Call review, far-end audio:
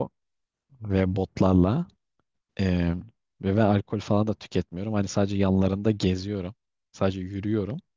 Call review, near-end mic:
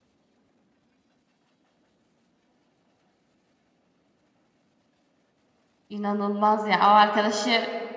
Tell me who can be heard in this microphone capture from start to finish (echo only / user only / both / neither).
user only